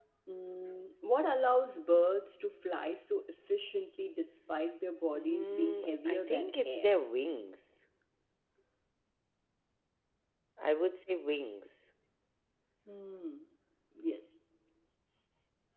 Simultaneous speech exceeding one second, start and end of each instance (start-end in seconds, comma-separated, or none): 5.2-6.9